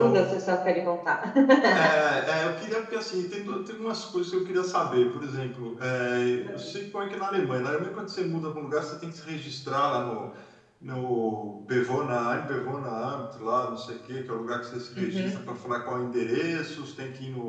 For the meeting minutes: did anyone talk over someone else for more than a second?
No

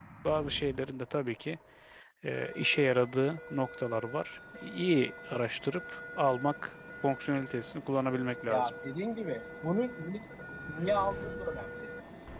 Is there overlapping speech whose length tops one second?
No

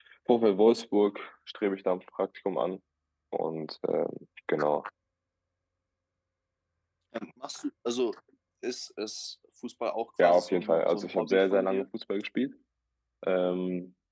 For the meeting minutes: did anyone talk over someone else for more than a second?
Yes, from 10.2 s

